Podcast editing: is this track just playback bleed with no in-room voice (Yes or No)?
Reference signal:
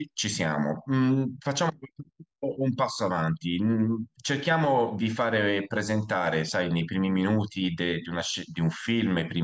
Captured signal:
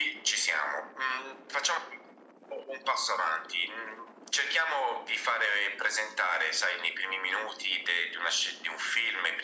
Yes